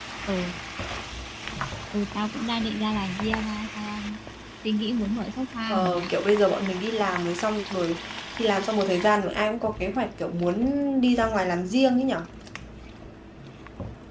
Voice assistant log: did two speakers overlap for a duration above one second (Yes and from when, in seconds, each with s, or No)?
No